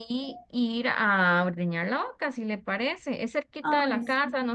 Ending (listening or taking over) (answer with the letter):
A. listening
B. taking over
A